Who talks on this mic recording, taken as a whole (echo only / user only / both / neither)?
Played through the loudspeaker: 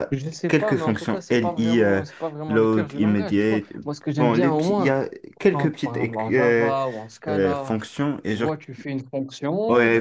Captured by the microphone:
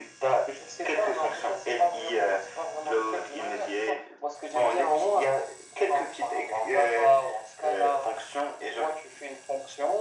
echo only